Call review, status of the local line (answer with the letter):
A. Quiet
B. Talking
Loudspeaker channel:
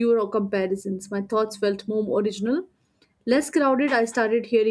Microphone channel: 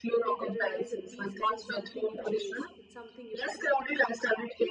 B